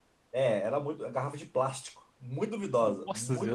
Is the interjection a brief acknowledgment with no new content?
No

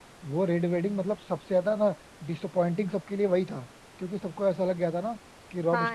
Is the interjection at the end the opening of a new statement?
No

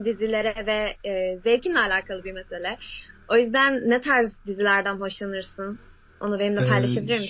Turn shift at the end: Yes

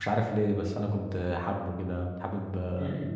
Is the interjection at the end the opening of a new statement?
Yes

